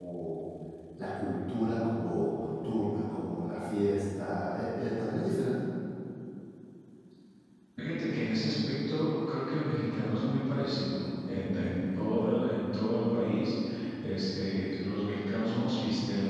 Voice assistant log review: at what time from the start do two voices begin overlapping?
none

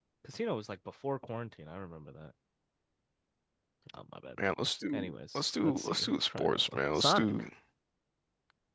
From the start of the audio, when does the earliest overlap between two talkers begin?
5 s

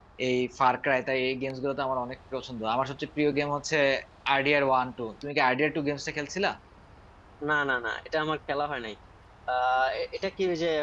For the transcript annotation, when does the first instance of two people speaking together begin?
none

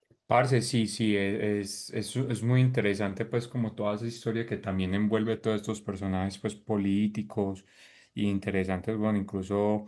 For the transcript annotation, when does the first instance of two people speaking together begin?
none

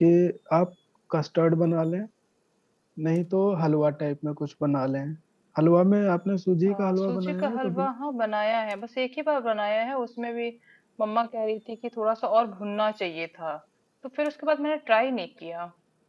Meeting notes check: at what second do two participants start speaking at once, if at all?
7 s

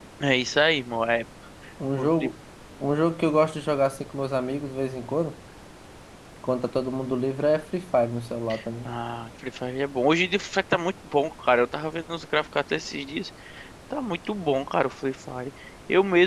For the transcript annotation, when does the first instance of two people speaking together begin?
none

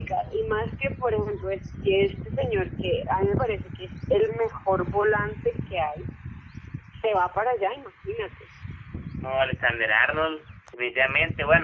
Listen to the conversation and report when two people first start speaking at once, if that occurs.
none

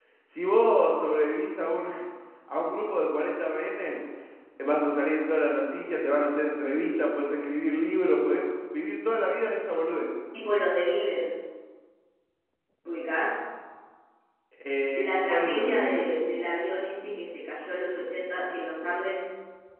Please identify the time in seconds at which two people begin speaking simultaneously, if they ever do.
15 s

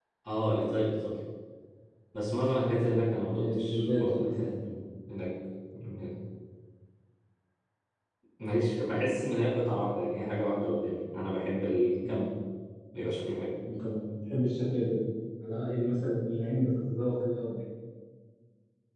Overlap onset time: 3 s

